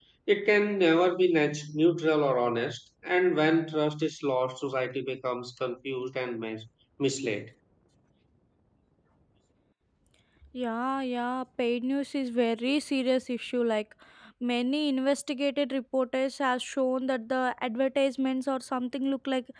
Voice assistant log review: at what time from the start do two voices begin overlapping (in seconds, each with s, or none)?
none